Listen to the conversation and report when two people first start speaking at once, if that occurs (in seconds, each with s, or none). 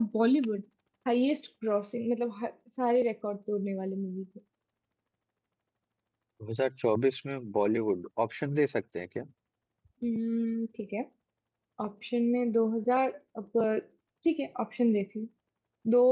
none